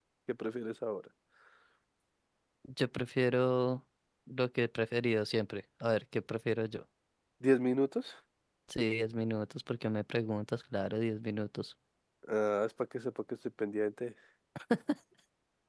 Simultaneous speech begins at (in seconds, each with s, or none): none